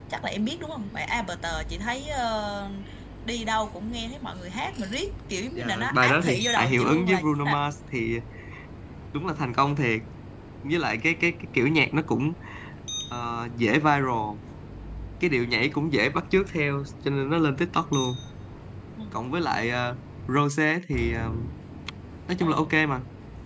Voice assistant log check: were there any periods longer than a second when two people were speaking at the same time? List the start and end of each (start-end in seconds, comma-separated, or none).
5.5-7.6